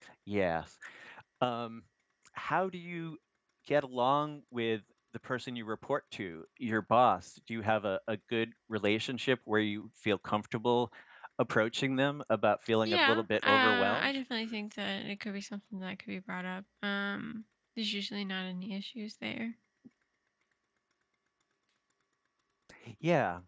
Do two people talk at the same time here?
Yes, from 12.8 s

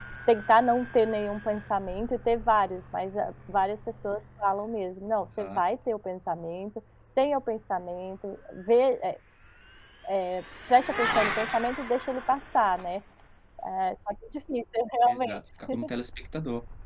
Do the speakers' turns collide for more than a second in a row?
No

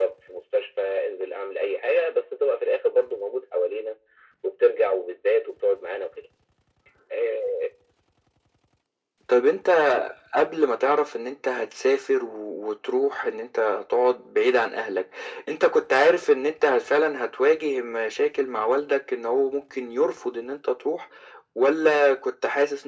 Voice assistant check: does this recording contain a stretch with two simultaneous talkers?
No

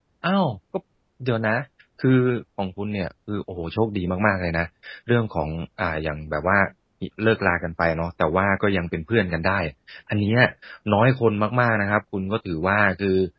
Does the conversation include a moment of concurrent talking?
No

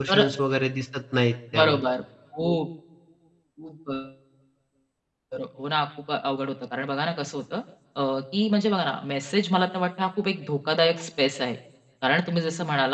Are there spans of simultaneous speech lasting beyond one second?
No

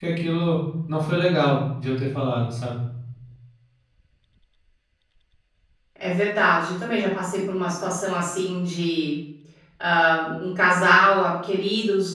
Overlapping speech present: No

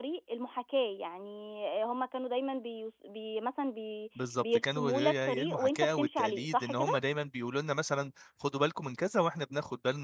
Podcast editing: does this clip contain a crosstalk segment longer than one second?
Yes, from 4.4 s

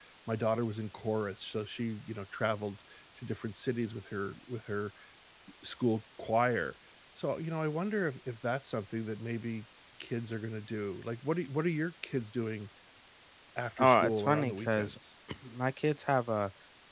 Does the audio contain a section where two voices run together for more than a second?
Yes, from 13.8 s

